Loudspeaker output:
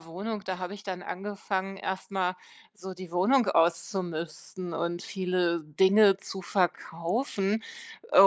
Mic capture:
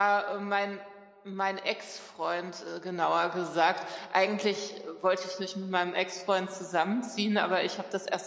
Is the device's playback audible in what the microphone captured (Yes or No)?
No